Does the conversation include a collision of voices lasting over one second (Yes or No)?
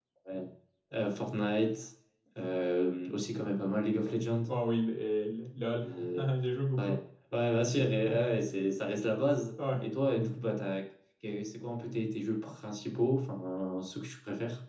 No